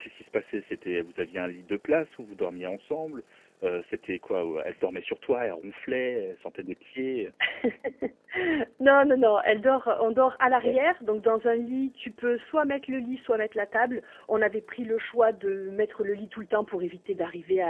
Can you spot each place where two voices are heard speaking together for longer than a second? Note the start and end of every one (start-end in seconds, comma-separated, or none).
none